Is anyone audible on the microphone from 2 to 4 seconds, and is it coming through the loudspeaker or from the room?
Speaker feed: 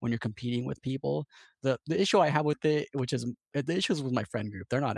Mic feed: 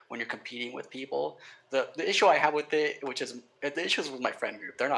echo only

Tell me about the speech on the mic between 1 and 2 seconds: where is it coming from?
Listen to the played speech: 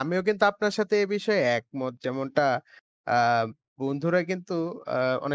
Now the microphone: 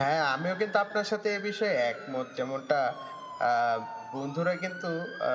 echo only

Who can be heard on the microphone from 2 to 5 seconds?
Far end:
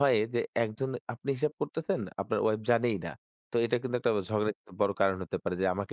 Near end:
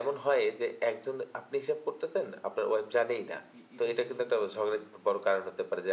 both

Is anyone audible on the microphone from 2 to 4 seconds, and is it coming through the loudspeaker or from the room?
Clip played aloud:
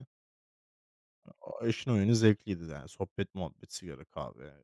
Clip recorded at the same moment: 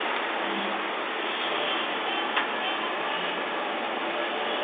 neither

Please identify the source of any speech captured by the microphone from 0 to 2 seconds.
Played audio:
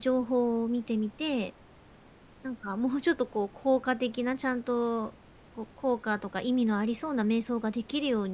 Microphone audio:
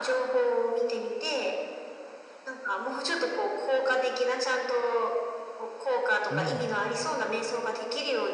echo only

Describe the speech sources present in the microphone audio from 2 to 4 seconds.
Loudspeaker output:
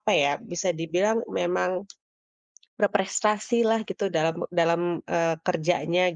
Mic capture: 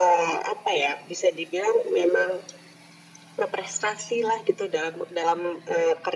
echo only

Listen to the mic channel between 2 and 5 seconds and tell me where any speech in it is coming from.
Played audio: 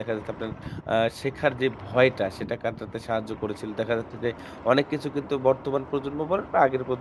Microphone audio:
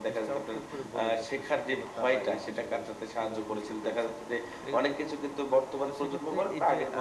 both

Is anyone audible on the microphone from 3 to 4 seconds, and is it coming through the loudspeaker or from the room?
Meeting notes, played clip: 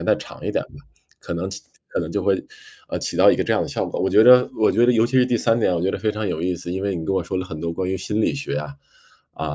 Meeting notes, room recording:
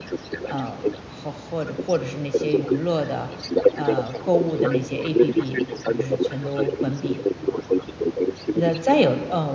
both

